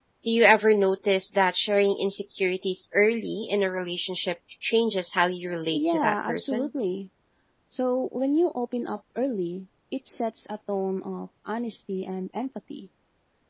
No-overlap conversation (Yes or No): No